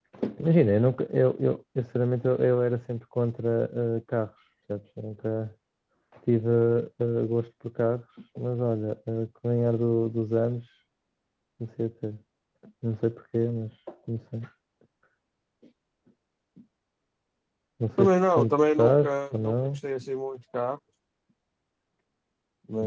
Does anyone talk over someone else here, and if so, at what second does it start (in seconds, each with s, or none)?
18.0 s